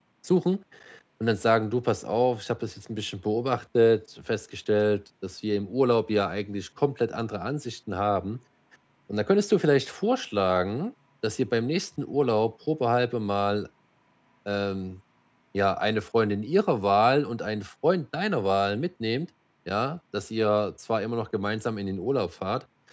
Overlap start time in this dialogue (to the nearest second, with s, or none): none